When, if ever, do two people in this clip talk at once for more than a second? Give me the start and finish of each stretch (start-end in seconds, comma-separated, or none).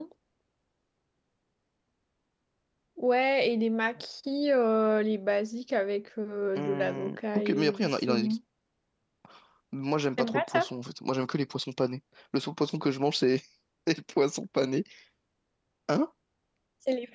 6.6-8.4